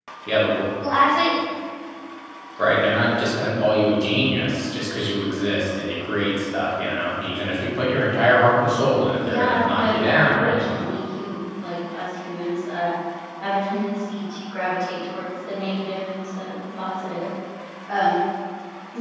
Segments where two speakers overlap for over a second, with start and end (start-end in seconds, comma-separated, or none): 9.2-10.6